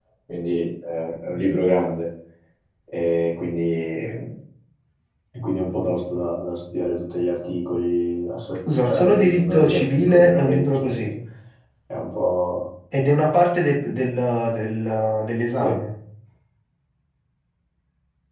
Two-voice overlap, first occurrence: 8.8 s

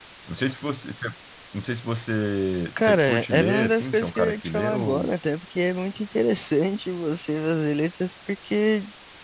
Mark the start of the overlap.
2.8 s

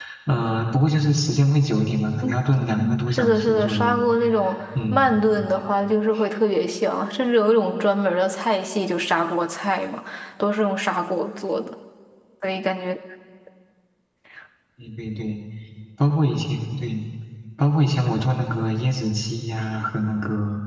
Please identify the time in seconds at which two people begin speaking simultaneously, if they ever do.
2.2 s

